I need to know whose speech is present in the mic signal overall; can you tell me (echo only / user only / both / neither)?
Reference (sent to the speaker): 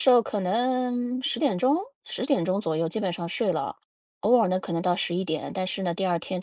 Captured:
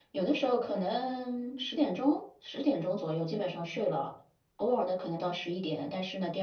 echo only